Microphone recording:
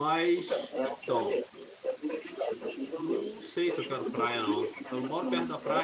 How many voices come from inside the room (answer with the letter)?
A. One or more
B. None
A